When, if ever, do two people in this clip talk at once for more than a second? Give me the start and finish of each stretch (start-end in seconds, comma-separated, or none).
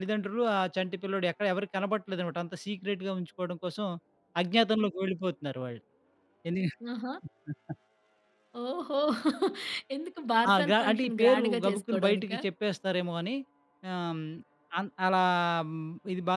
10.5-12.4